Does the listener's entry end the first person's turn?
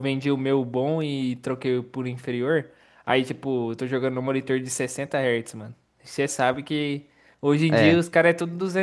No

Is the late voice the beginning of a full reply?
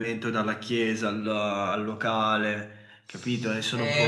Yes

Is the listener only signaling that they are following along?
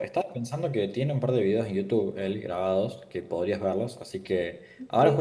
Yes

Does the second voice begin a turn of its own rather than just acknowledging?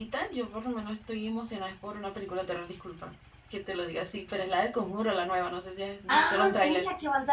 Yes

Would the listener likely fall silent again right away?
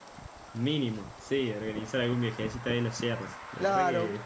No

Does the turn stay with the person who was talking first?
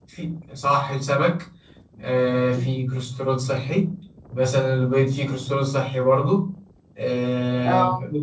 Yes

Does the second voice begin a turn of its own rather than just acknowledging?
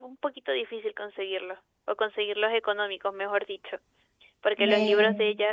No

